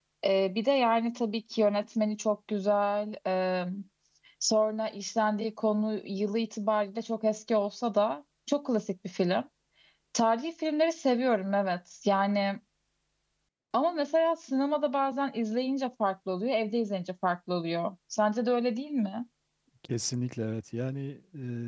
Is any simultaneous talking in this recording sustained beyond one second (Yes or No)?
No